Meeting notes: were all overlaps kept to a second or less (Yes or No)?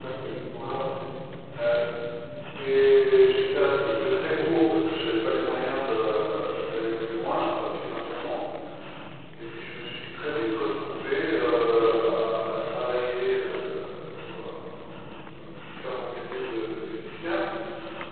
Yes